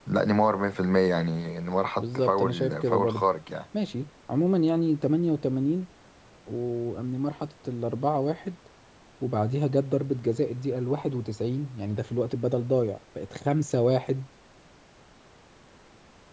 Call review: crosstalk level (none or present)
present